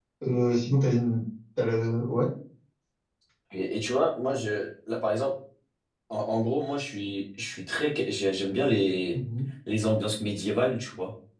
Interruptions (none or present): none